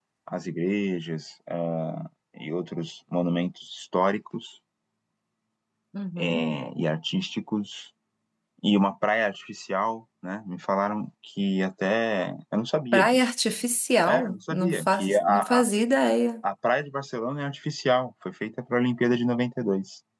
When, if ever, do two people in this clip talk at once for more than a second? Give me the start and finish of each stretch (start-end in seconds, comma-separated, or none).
14.1-15.6